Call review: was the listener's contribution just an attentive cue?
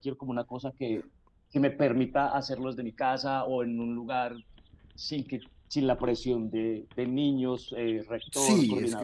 No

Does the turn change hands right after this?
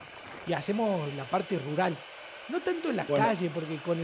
No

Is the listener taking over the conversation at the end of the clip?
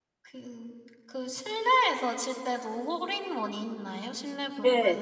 Yes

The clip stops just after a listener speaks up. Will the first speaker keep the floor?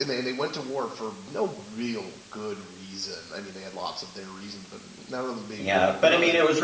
No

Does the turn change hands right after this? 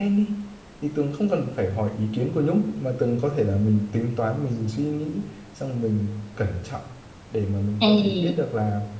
No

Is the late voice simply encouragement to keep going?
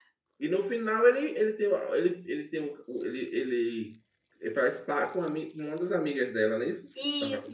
No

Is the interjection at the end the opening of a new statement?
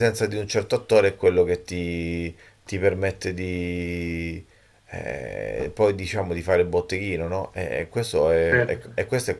No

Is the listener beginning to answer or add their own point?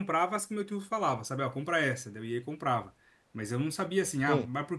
No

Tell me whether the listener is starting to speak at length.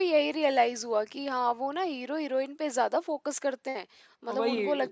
Yes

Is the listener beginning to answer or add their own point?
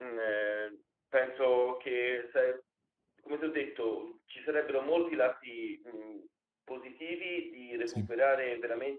No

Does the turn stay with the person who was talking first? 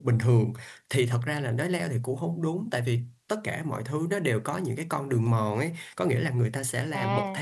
Yes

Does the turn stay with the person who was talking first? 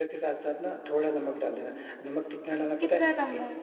Yes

